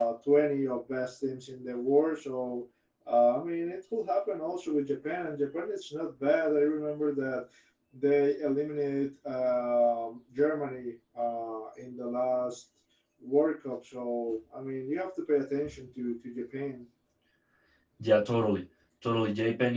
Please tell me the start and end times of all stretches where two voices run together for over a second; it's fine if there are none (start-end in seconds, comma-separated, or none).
none